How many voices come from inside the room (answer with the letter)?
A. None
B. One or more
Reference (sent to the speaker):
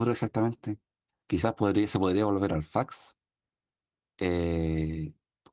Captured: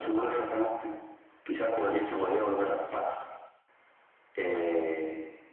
A